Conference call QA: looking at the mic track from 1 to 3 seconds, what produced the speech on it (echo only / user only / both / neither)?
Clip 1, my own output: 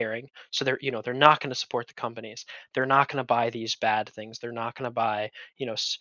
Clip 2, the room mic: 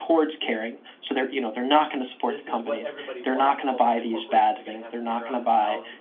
both